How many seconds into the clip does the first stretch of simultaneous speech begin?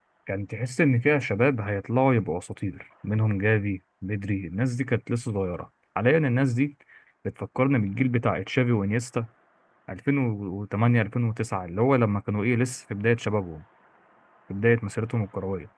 none

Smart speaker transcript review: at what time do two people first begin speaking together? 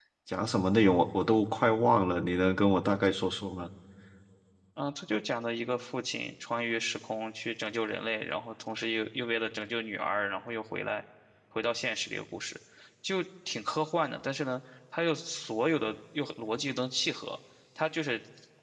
none

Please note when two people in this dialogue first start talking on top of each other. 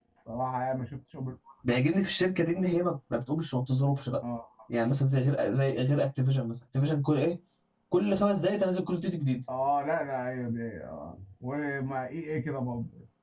none

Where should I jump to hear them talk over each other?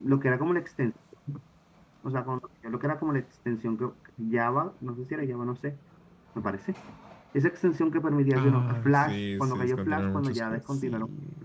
8.3 s

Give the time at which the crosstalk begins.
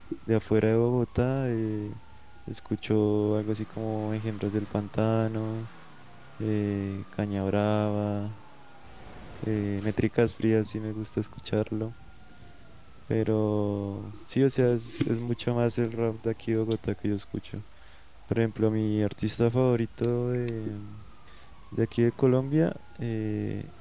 none

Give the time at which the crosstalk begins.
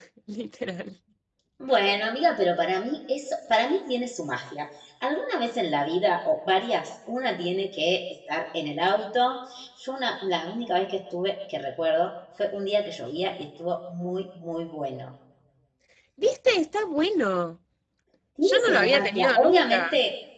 18.4 s

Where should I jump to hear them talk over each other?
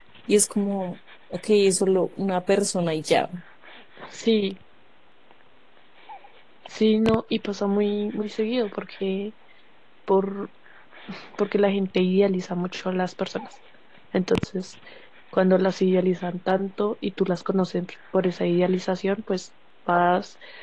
none

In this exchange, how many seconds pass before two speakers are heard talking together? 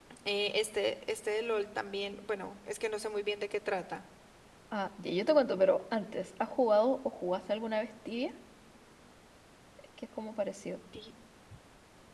none

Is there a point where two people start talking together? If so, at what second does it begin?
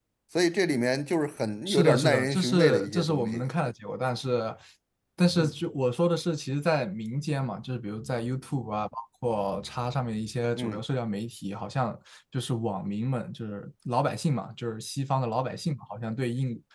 1.7 s

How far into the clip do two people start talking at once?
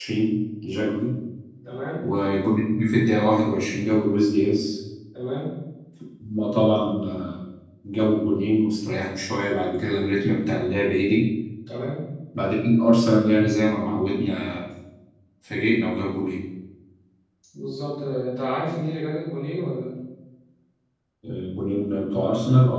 none

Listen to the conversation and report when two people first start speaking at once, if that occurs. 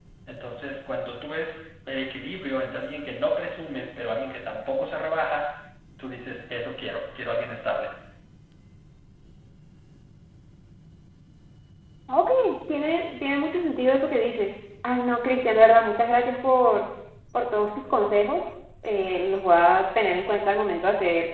none

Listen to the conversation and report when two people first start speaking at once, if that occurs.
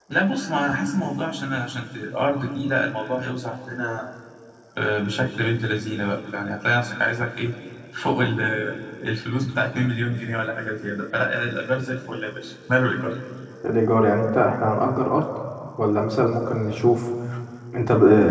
none

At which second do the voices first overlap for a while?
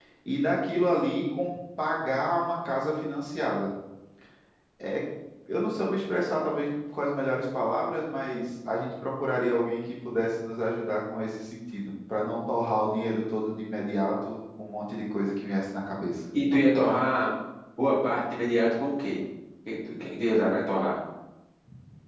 none

